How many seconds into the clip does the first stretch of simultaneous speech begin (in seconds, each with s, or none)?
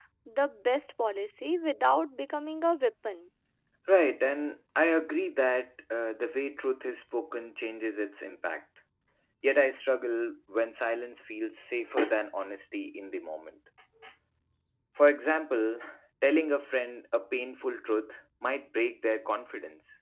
none